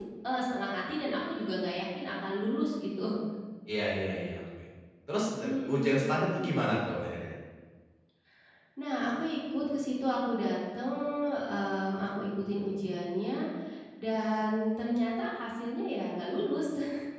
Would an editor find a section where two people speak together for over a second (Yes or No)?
No